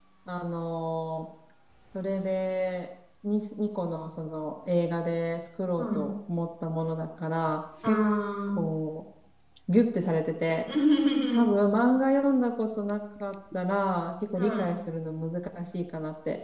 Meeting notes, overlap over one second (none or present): none